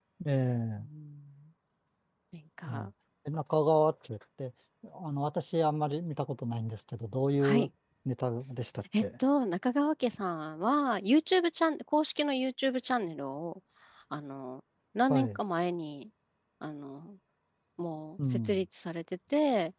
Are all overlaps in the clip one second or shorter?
Yes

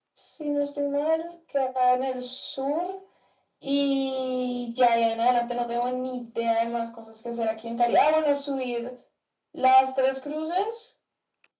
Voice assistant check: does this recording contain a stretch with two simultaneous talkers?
No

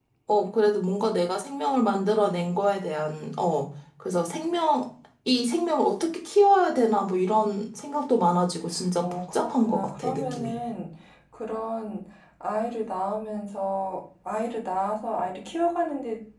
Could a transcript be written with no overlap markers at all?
No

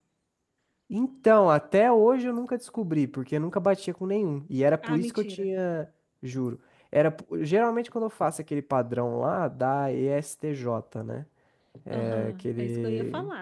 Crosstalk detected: Yes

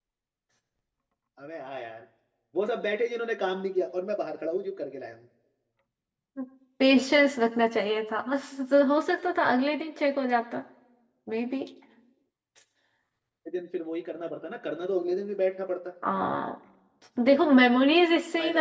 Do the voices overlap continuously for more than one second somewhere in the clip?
No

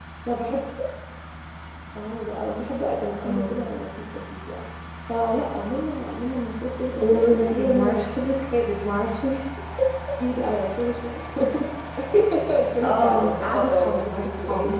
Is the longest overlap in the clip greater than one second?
Yes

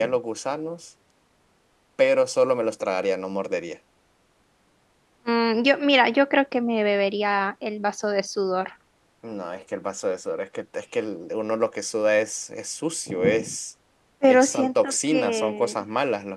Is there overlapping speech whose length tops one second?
Yes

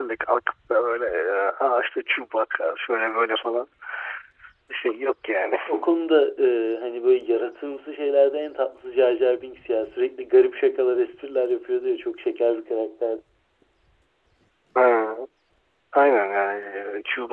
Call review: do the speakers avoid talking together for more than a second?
Yes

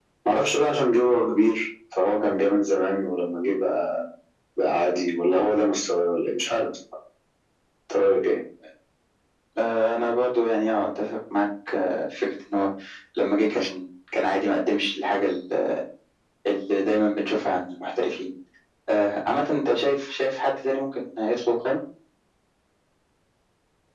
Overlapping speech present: No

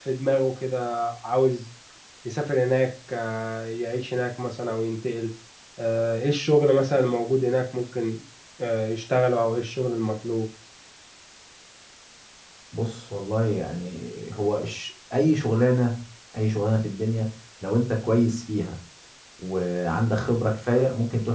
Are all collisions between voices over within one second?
Yes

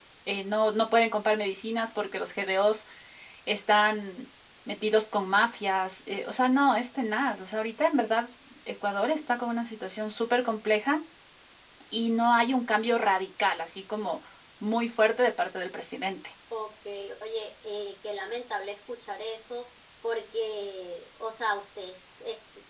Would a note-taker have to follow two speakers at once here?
No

